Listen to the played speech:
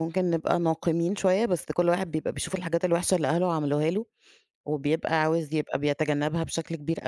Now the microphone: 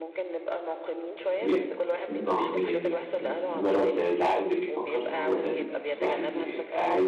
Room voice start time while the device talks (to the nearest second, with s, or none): 1 s